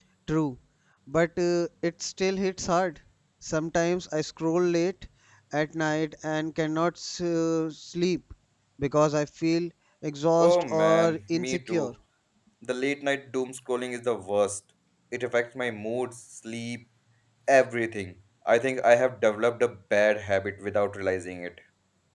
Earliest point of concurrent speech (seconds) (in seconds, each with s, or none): 10.4 s